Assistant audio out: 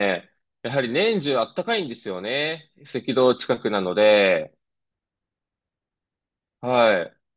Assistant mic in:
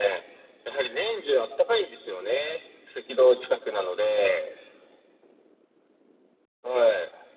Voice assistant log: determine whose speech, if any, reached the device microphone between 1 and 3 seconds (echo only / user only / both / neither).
echo only